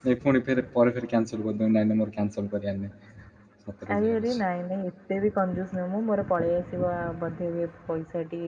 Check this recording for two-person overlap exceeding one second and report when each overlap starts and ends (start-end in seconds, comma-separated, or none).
none